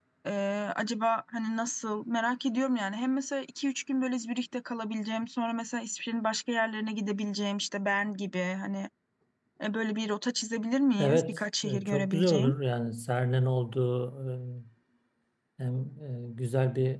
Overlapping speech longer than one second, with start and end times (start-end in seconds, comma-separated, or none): 11.0-12.5